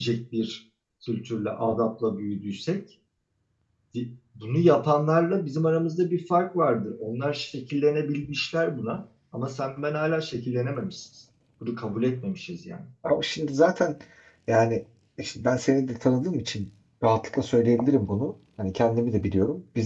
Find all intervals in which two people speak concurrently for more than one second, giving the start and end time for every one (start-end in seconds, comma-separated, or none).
none